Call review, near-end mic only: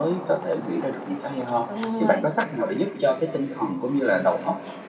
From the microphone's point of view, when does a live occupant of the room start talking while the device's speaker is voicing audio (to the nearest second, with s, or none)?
2 s